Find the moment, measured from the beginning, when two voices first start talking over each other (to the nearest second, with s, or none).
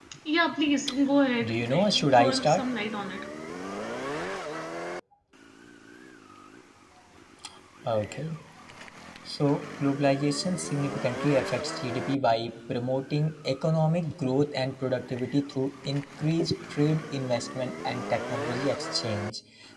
1 s